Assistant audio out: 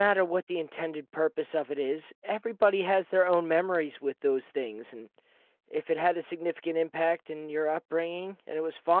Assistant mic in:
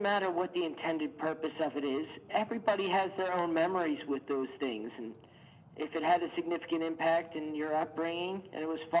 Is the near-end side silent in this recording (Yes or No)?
Yes